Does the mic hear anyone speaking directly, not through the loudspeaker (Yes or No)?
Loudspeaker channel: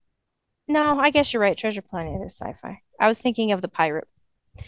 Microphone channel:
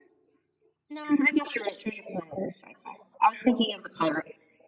No